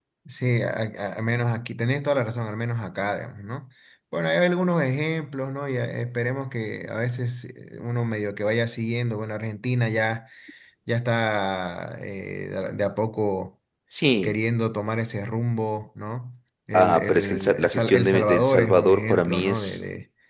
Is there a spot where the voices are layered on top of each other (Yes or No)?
Yes